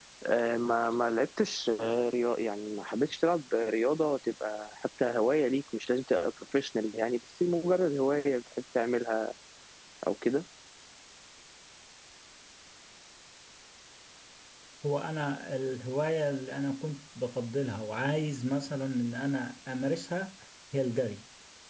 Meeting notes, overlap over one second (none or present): none